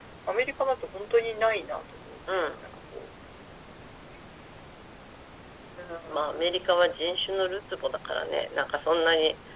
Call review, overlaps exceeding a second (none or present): none